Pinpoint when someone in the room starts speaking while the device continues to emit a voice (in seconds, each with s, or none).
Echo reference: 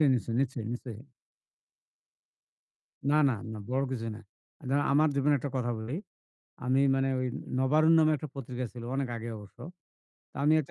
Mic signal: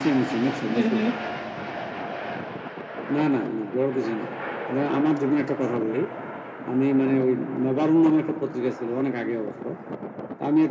0.7 s